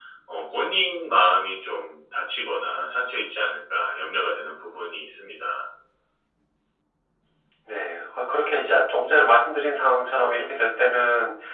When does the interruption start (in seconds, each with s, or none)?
none